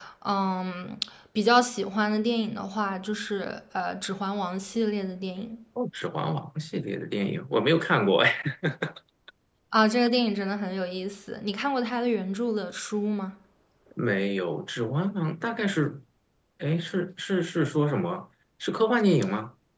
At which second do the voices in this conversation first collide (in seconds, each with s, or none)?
none